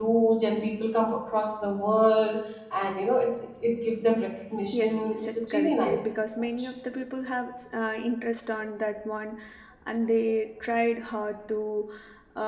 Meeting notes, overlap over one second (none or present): present